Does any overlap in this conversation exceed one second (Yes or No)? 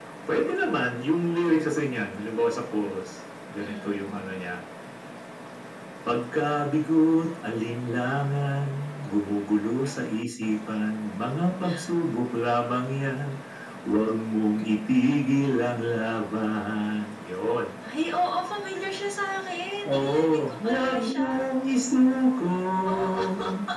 Yes